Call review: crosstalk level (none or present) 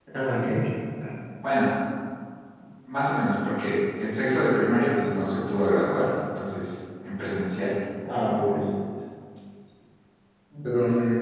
none